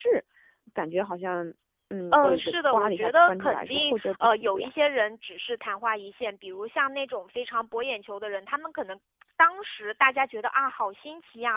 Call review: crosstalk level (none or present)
present